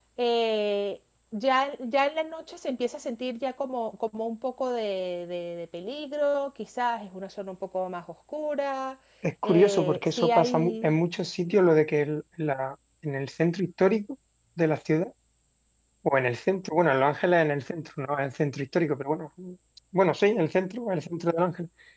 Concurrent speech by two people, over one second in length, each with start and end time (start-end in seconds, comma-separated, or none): 9.4-10.9